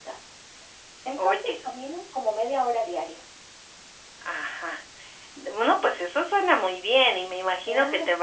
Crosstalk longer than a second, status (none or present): none